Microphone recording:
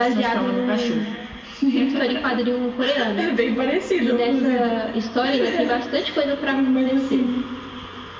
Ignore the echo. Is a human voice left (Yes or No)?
No